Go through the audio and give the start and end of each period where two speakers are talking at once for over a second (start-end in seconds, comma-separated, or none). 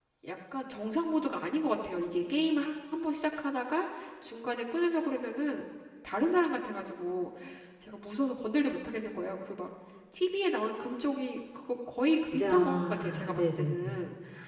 12.3-14.0